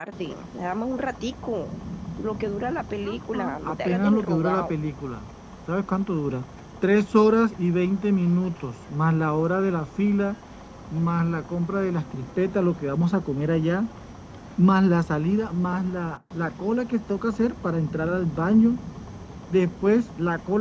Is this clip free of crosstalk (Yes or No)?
No